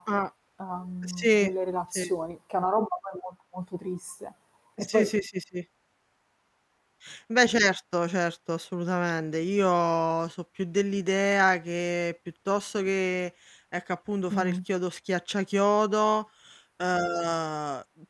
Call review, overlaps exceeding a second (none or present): none